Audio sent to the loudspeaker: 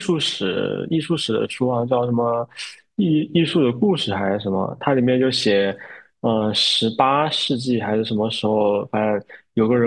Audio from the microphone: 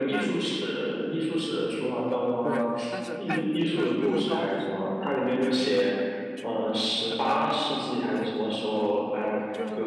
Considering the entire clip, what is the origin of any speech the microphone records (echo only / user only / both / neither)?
both